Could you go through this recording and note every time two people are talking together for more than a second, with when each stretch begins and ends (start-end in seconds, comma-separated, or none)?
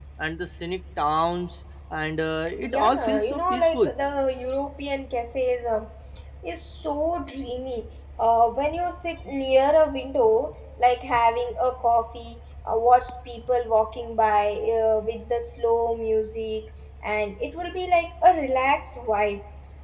2.7-3.9